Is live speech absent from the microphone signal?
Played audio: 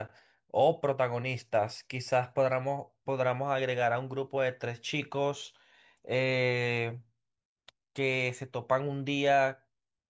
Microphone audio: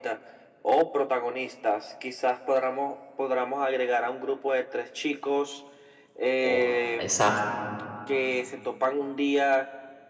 No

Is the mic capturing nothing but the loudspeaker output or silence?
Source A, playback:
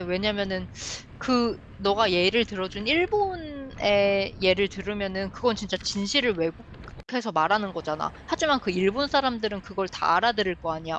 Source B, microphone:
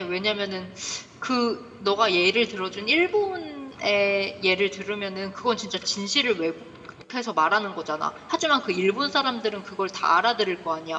Yes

